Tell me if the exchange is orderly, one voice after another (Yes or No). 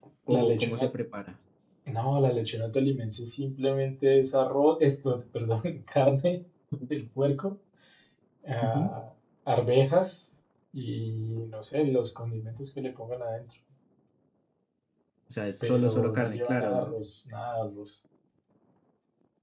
No